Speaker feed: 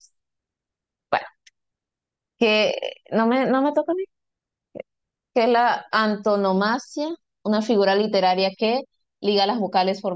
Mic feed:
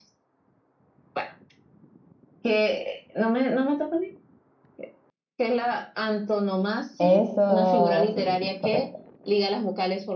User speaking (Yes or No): Yes